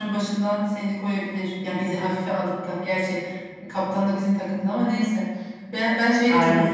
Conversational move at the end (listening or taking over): listening